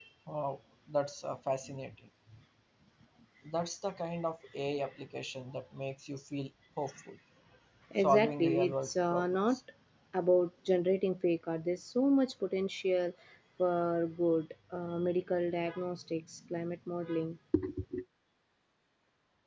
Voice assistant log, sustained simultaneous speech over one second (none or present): present